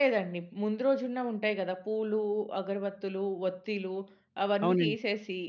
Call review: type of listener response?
listening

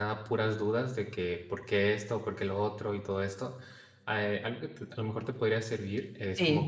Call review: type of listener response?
listening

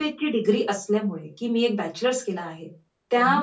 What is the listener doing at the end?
listening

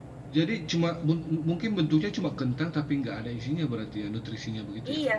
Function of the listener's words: taking over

